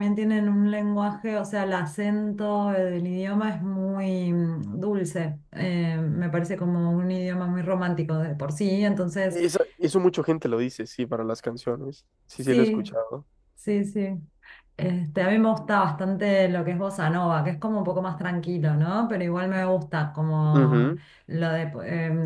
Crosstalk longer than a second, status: none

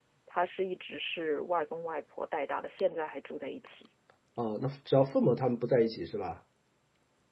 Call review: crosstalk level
none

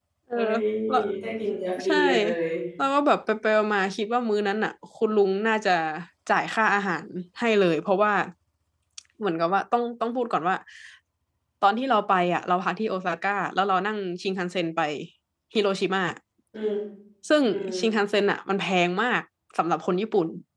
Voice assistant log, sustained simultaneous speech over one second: none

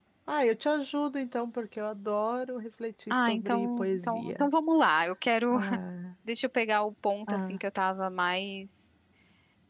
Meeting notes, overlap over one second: present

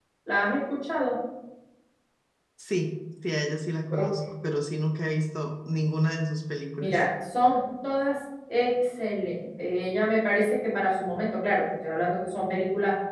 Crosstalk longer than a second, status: none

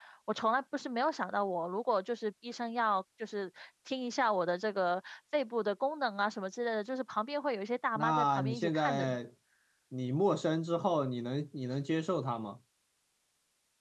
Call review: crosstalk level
present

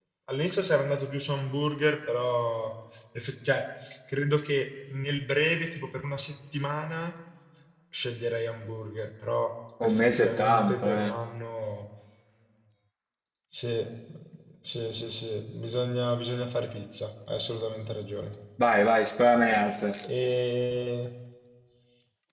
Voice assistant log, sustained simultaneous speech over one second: present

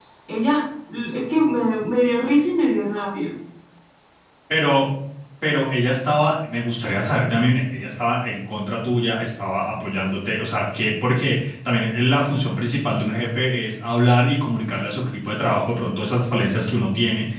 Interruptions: none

